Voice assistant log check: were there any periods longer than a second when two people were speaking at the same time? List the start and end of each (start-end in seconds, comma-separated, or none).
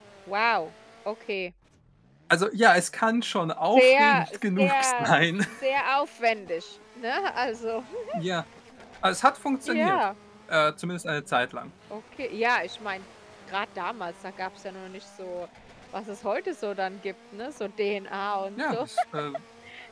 3.8-5.1